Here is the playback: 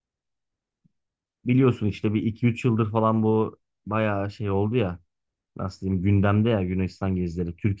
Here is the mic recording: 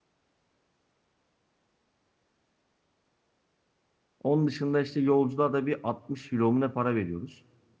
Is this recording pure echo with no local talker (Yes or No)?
No